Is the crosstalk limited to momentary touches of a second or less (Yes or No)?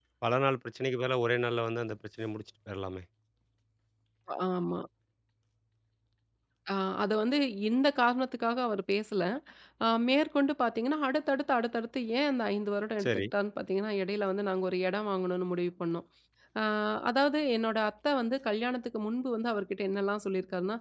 Yes